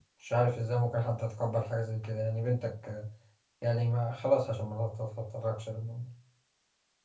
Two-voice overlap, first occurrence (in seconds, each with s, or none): none